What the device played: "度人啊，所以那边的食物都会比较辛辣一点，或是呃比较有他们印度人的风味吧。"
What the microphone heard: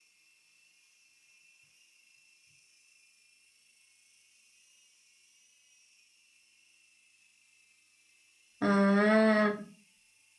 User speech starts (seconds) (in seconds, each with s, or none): 8.6 s